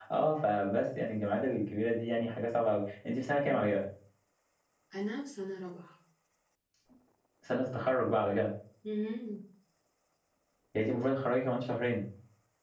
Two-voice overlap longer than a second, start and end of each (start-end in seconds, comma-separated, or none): none